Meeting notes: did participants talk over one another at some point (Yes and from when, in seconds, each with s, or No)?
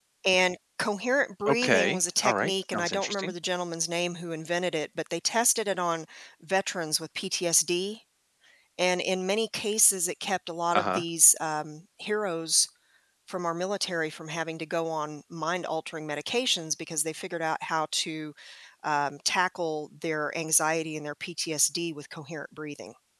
Yes, from 1.5 s